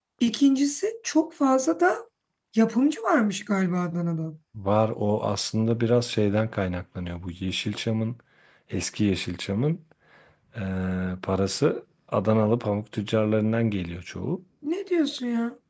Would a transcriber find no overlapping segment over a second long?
Yes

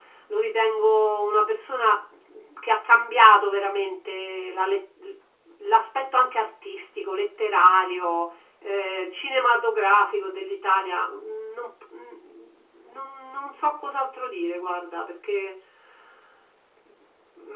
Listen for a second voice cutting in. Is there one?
No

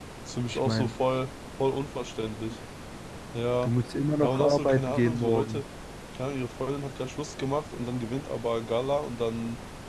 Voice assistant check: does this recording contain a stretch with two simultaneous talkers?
Yes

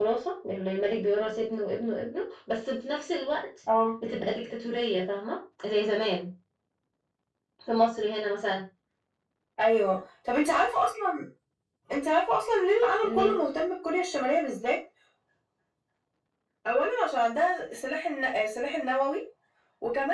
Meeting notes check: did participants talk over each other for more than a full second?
No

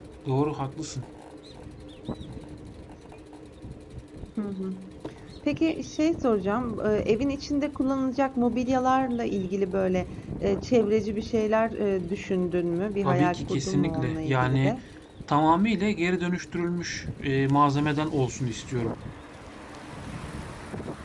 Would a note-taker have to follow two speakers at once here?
Yes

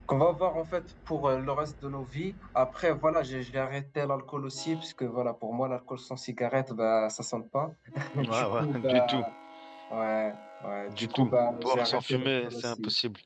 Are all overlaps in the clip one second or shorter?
No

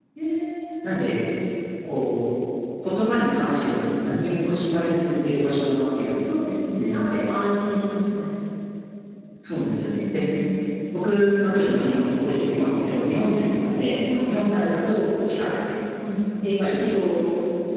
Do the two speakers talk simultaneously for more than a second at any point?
No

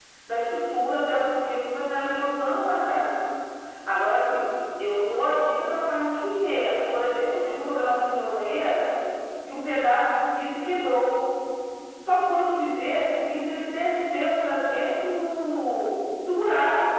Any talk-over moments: No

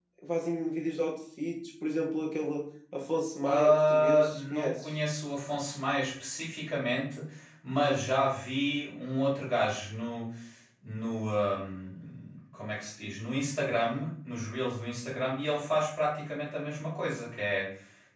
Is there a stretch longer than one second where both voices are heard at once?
Yes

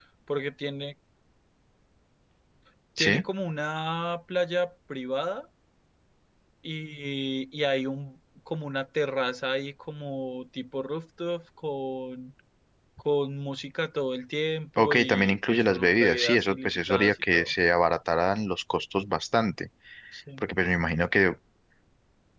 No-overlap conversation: No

